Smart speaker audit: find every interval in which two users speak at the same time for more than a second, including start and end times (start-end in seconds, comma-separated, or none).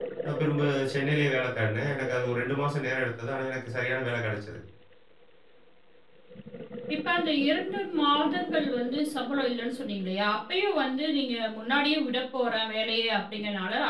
none